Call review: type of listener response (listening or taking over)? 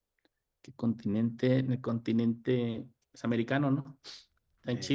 listening